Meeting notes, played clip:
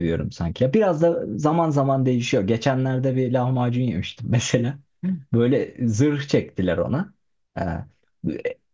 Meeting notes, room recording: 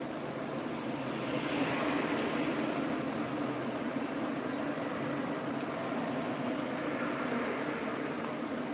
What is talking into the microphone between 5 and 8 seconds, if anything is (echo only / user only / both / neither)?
neither